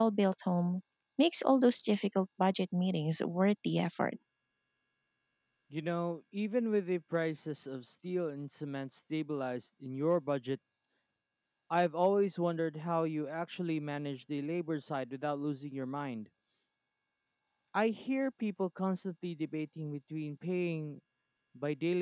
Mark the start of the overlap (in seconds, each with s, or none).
none